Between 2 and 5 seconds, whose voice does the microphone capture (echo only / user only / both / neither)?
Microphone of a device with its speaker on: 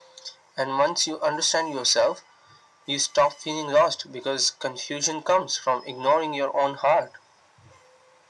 echo only